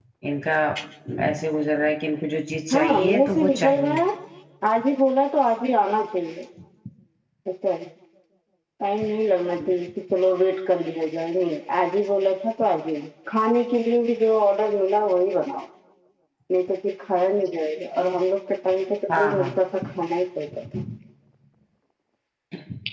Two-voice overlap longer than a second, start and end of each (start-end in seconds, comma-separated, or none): 2.7-4.0